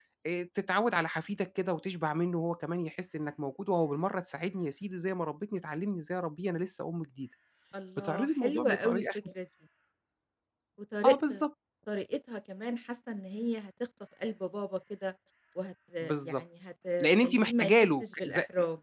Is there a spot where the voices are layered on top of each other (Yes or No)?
Yes